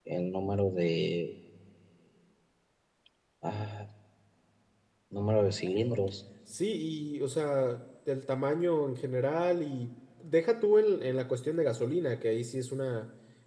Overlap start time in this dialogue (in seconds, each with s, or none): none